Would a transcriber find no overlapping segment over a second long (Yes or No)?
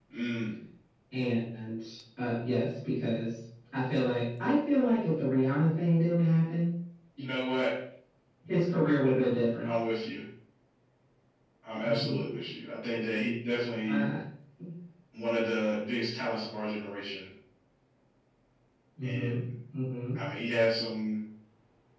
Yes